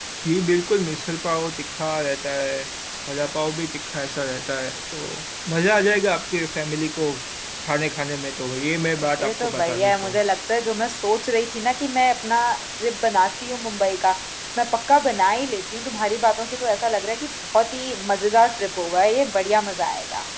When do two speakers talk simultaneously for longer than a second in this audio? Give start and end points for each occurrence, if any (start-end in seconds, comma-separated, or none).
9.0-10.2